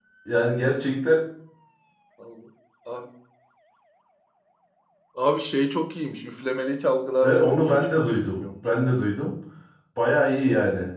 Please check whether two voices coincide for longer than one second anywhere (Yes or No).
Yes